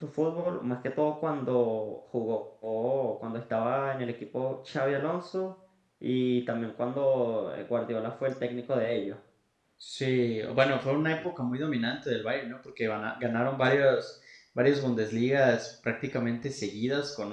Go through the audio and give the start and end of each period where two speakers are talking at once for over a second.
none

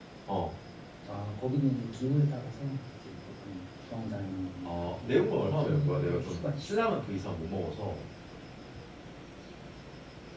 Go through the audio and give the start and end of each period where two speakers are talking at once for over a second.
4.6-6.9

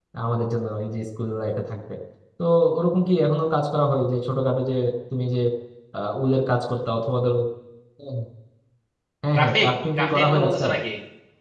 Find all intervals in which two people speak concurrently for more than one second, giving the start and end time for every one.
9.4-10.7

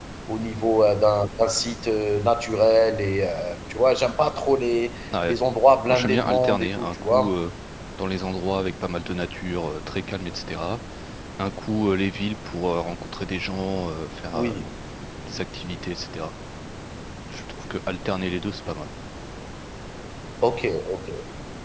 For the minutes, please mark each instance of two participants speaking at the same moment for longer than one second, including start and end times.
5.9-7.3

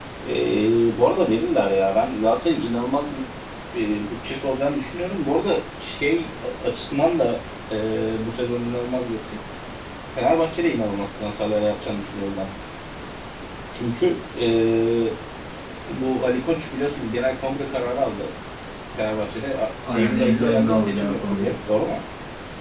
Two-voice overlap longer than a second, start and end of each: 19.9-21.5

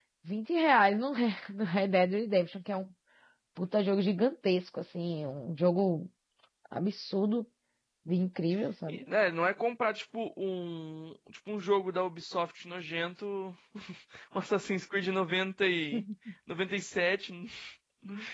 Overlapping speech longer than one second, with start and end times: none

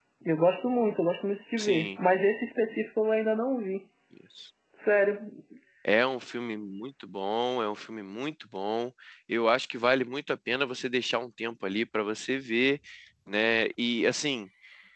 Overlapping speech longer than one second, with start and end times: none

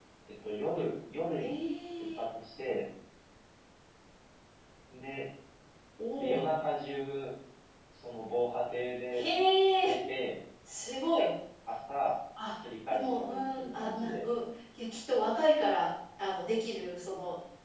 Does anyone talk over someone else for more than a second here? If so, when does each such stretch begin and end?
12.9-14.2

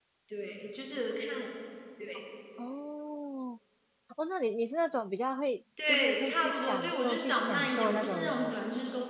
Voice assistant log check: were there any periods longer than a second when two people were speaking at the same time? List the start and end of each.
5.9-8.5

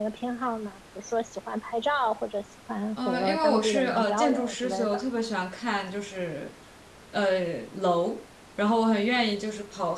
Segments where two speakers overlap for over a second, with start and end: 3.0-5.0

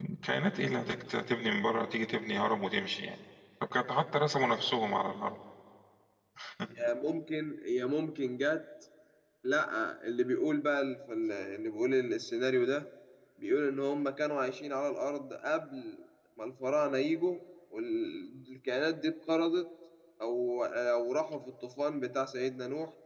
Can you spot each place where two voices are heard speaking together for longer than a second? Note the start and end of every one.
none

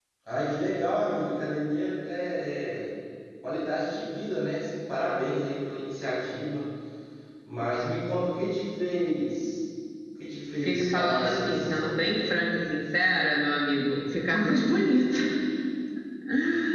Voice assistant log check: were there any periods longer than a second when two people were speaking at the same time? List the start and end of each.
10.6-12.0

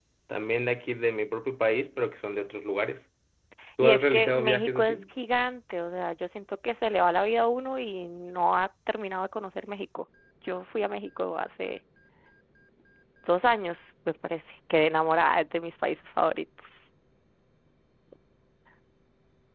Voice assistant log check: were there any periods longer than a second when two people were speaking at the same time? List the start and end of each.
3.8-5.0

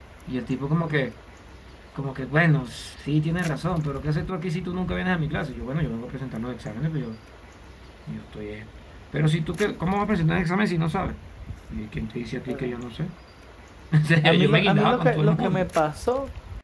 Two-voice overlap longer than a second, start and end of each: 14.2-15.7

